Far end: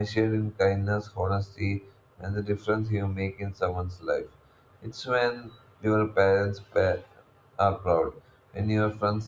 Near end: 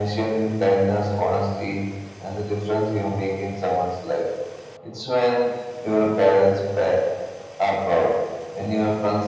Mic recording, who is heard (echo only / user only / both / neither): echo only